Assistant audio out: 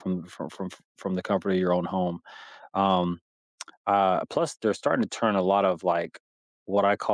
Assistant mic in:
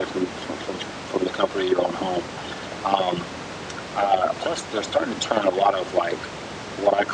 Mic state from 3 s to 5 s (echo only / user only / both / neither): echo only